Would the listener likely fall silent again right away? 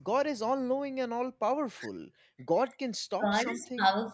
No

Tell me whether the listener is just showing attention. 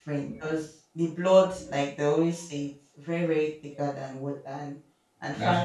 Yes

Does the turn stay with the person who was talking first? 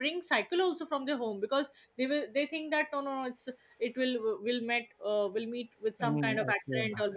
Yes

